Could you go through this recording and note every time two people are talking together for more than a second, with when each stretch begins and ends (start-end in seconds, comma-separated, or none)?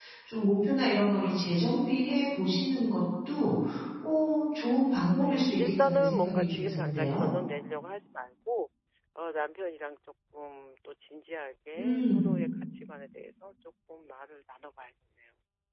5.0-7.3